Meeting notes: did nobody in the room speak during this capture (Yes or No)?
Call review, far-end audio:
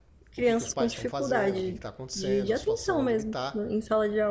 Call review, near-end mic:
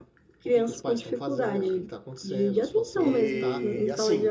No